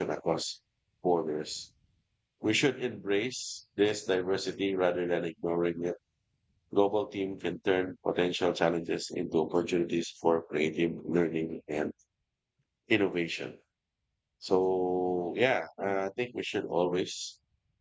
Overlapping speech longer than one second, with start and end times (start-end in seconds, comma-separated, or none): none